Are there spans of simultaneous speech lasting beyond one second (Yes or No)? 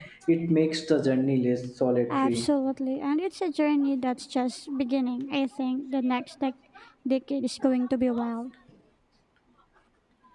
No